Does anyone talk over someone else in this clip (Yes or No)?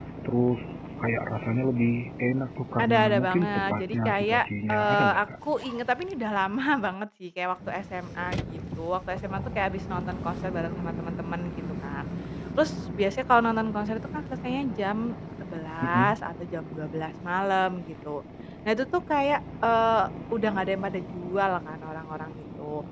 Yes